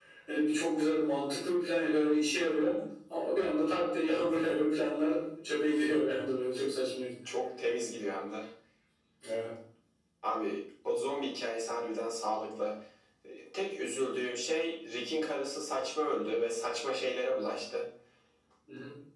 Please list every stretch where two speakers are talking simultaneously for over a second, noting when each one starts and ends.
none

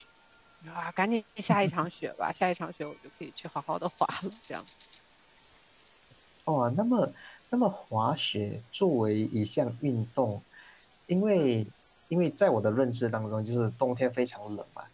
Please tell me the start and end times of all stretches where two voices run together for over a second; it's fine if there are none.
none

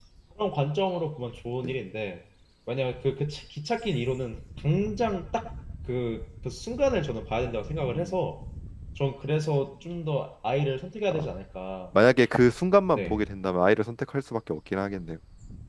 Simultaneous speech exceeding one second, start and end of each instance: none

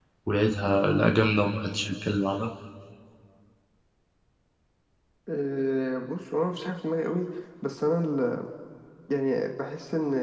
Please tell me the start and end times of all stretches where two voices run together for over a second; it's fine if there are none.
none

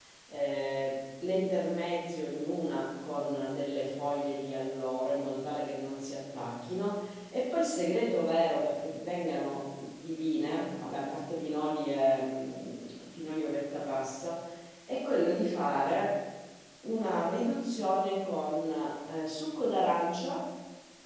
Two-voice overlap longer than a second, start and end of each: none

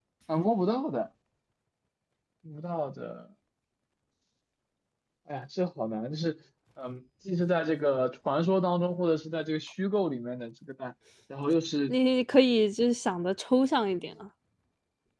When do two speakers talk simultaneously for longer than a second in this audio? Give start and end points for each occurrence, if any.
none

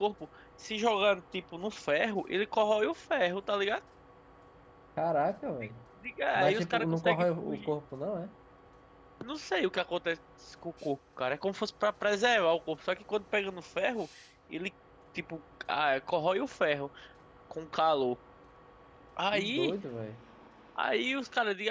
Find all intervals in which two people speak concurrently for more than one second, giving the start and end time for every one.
6.3-7.7

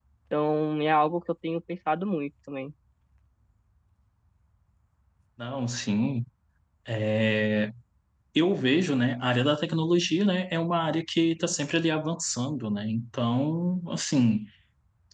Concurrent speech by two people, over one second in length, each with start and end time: none

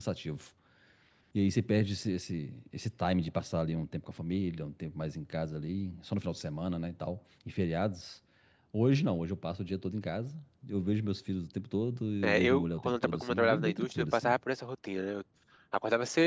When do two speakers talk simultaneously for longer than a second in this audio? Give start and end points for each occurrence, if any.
12.2-14.3

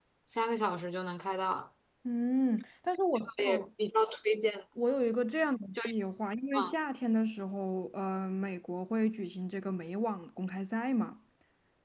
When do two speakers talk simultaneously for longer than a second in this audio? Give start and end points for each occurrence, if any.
none

